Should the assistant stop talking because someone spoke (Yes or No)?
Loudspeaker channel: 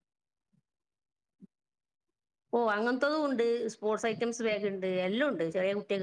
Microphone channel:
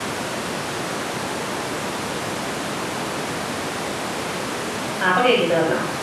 Yes